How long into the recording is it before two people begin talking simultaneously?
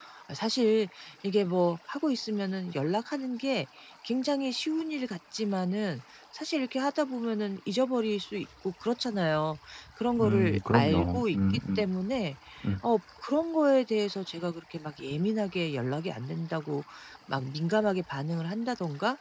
10 s

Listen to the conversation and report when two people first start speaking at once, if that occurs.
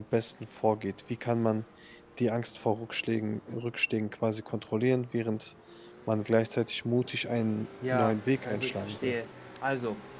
8 s

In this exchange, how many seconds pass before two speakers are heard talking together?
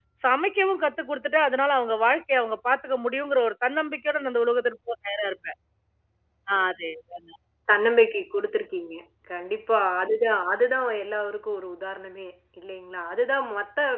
none

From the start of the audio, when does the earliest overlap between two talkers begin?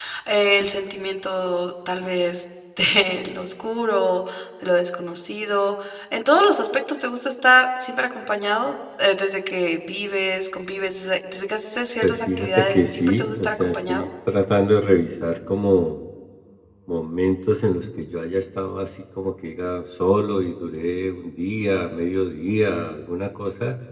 12 s

